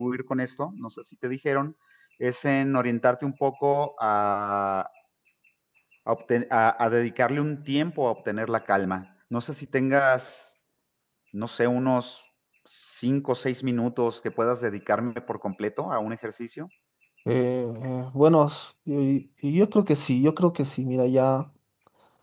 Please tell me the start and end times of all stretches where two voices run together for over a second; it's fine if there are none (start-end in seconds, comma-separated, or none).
none